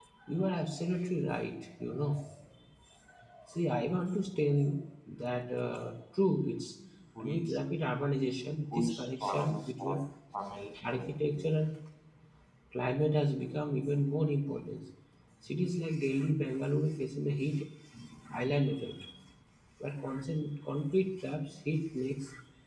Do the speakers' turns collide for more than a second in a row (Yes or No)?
Yes